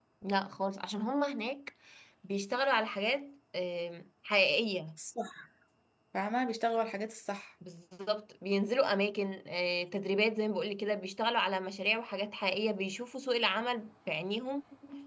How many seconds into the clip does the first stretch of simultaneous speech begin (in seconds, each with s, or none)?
none